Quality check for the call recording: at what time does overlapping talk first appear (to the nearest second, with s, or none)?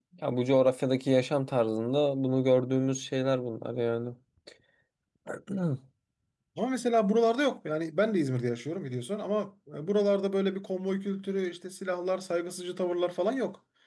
none